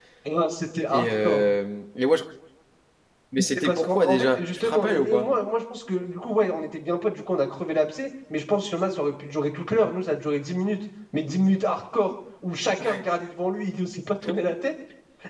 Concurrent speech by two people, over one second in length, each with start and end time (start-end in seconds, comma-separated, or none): 3.6-5.3